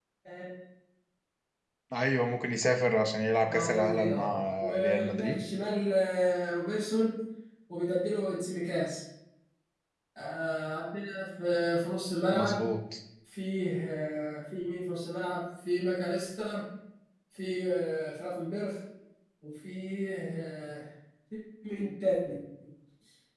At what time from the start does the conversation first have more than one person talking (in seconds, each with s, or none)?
3.5 s